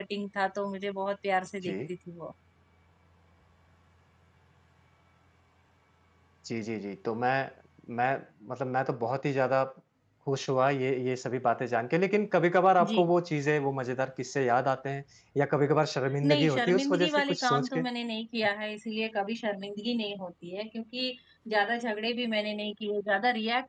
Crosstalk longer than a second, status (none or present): present